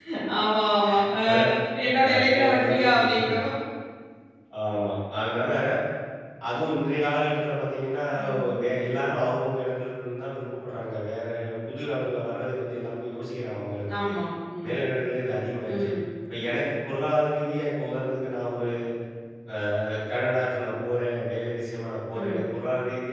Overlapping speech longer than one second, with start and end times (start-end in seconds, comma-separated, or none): 2.0-3.4